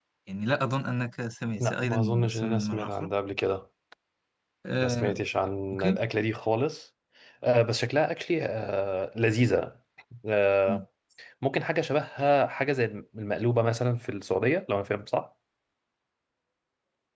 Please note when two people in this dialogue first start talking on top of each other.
1.6 s

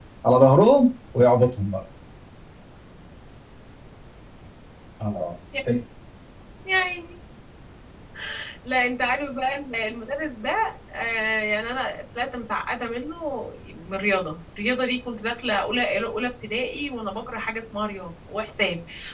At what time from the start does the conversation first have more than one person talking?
none

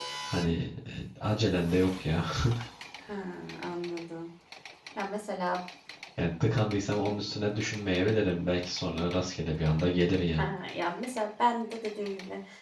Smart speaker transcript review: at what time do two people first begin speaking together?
none

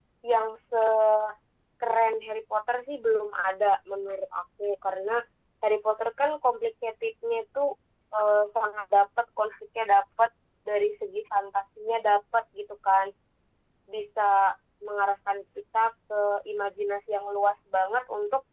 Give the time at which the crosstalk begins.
none

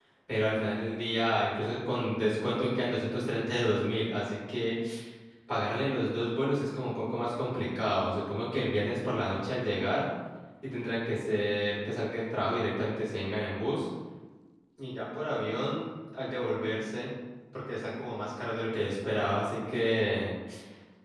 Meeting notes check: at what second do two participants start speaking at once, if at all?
none

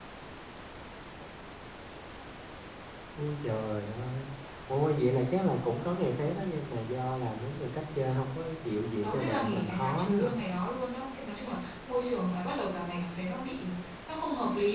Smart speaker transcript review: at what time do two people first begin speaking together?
9.0 s

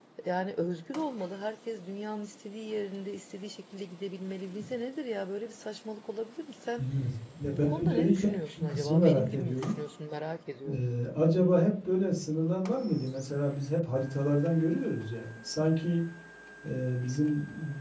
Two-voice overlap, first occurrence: 7.5 s

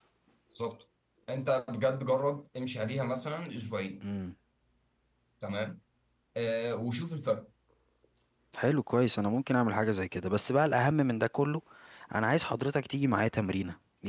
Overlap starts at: none

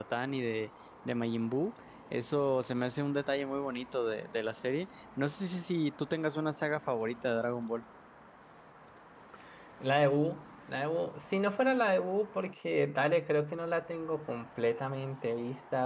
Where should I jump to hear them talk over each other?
none

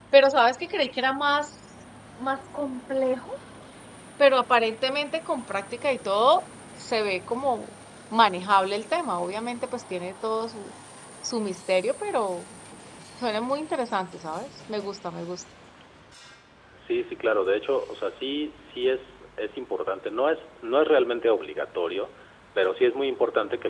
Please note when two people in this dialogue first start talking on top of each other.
none

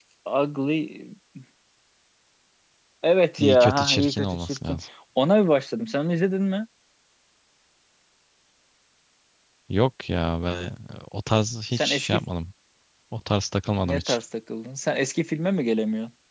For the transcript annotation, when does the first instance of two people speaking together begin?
3.4 s

